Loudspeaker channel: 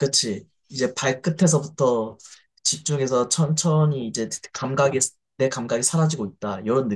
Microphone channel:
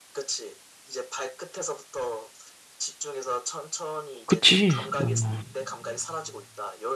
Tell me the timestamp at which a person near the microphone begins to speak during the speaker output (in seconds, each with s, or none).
4.2 s